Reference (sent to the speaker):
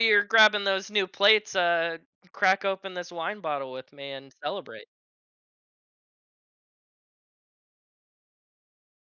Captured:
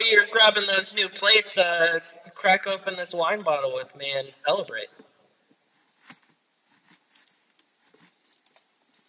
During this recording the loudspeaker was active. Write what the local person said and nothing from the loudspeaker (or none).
none